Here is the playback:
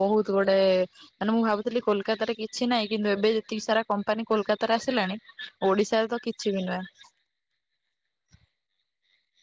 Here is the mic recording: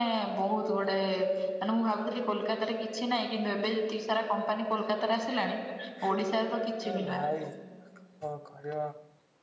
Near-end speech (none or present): present